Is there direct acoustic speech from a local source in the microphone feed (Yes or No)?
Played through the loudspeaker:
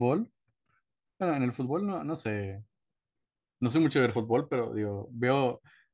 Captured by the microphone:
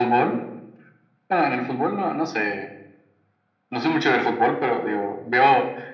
No